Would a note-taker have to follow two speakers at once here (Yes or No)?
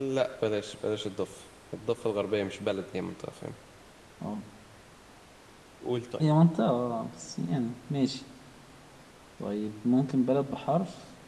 No